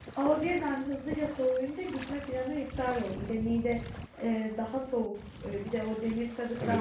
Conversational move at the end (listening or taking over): listening